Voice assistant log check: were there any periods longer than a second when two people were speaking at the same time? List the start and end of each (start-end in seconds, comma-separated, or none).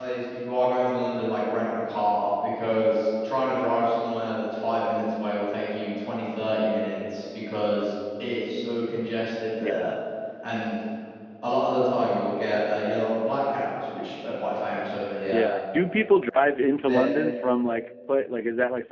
none